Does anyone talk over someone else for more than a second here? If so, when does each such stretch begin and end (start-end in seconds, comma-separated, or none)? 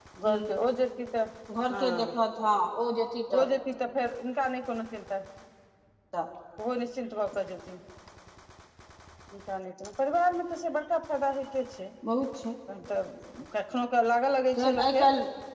none